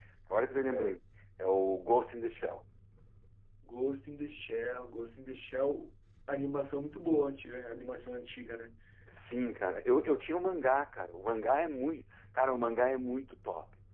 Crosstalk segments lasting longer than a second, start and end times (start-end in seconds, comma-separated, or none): none